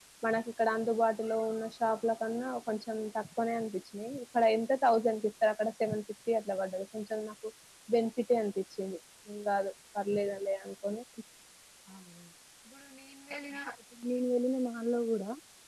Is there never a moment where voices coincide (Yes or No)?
Yes